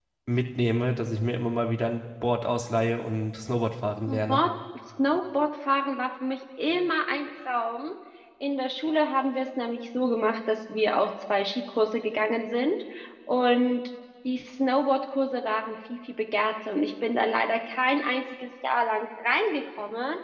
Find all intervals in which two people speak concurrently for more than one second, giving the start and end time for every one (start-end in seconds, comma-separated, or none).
none